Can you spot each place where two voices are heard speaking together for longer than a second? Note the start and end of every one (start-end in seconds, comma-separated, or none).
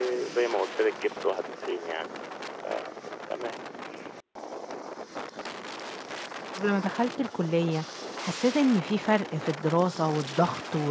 none